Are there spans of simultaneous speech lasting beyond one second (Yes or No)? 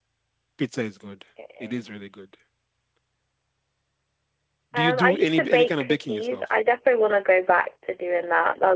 Yes